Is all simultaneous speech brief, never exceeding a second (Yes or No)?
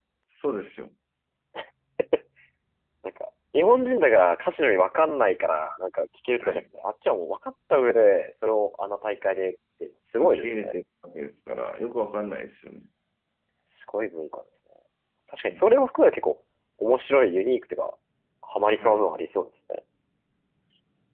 Yes